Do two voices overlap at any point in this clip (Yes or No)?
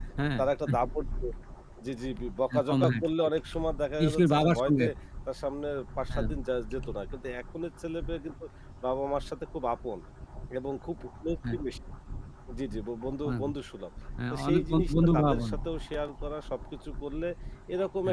Yes